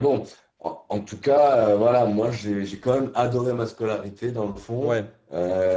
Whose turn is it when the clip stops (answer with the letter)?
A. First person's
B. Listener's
A